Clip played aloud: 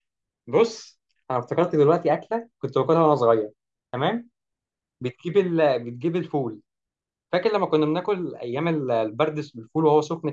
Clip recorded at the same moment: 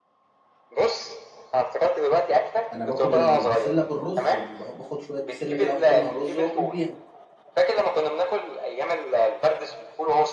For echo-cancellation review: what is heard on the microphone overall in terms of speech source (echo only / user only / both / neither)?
both